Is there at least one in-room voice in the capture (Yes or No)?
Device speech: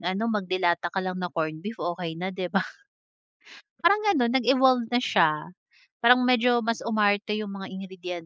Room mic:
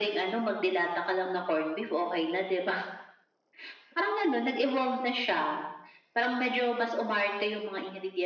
No